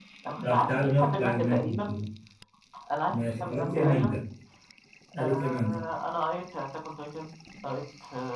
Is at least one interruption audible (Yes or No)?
Yes